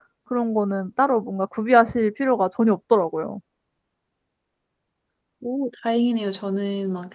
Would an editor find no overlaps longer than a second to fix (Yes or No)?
Yes